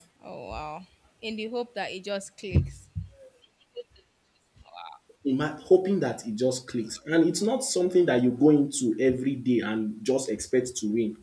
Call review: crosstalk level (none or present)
none